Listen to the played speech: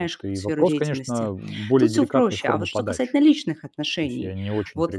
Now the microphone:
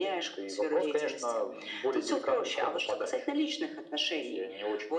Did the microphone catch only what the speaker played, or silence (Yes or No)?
Yes